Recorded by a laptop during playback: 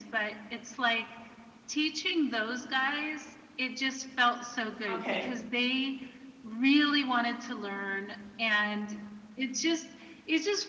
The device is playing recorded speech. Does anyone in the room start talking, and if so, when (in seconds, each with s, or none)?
4.9 s